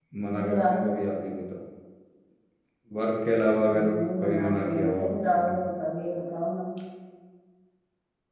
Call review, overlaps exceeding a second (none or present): present